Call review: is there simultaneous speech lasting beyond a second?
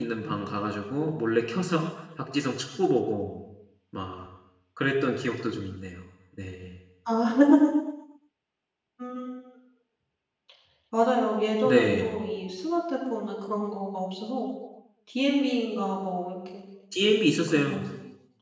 No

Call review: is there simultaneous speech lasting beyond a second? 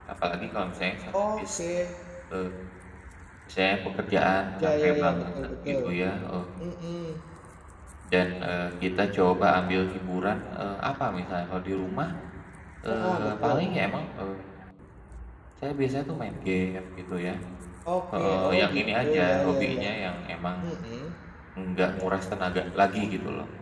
Yes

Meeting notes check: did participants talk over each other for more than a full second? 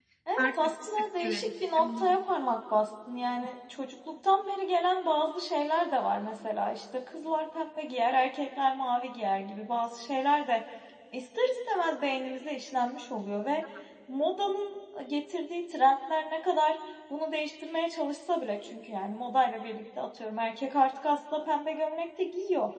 Yes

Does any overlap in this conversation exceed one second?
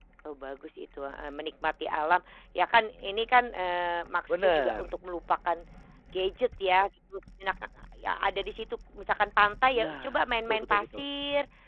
Yes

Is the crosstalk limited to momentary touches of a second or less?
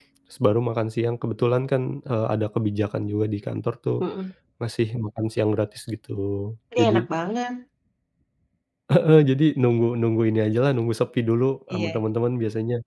Yes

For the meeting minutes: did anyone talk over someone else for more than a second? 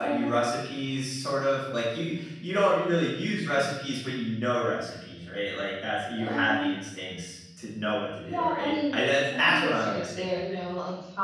Yes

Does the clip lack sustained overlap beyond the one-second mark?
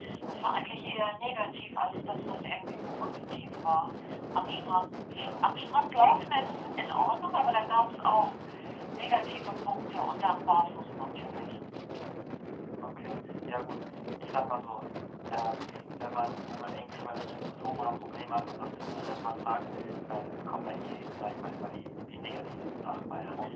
Yes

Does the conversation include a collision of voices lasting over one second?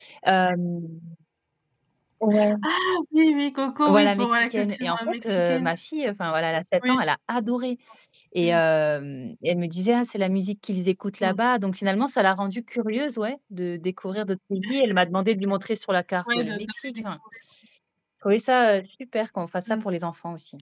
Yes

